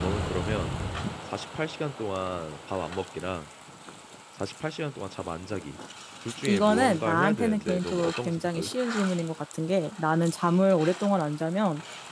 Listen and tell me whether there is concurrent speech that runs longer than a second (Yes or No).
Yes